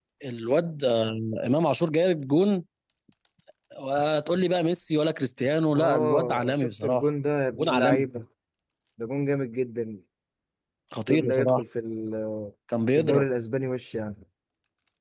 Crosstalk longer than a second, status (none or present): present